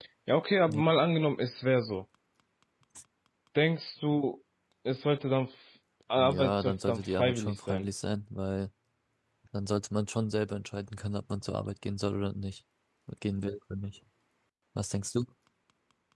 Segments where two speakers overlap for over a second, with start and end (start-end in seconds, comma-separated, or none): 6.2-7.8